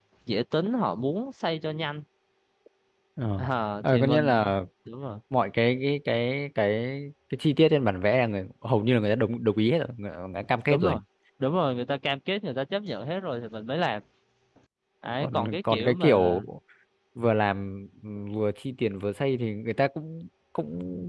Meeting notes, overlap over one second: present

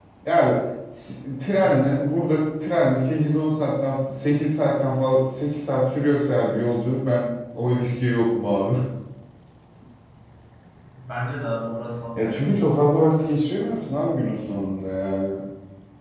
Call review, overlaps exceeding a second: none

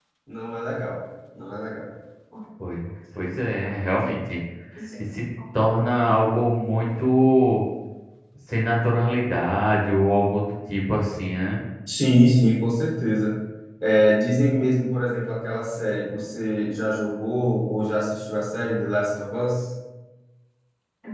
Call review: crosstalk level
none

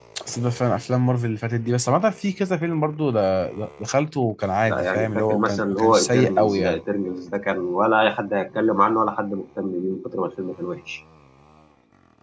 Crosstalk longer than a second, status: present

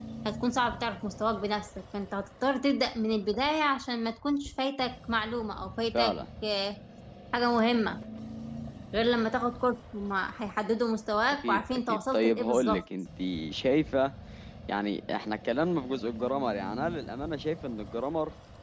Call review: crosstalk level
present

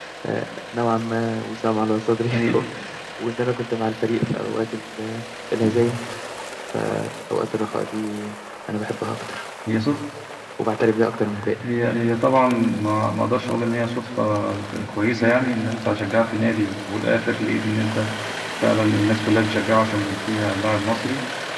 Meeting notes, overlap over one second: none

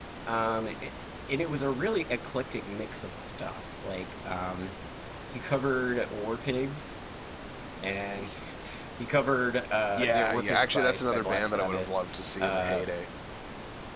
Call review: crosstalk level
present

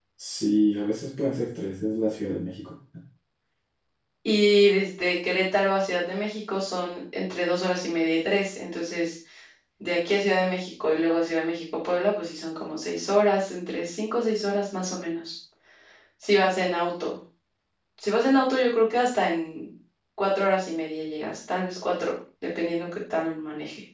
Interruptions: none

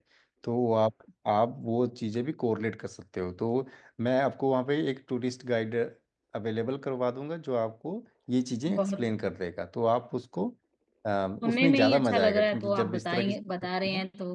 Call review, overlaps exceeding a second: present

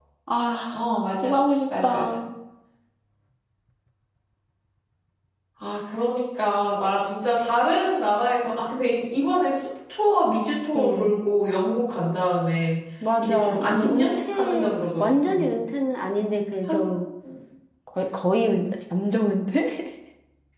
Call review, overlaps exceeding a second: present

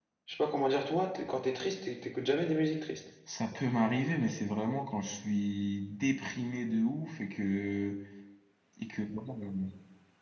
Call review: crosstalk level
none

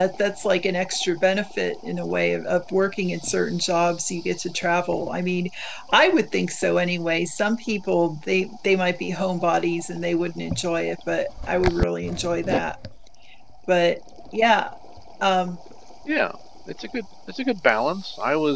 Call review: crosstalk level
none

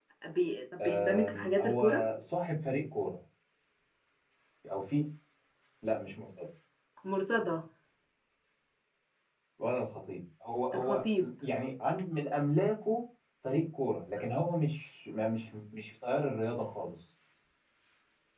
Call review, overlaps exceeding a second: present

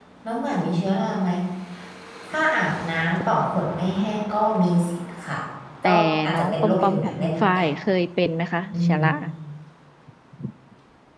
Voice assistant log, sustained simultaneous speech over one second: present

